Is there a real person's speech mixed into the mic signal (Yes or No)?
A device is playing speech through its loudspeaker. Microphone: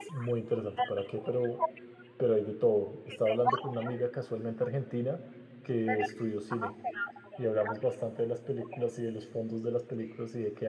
Yes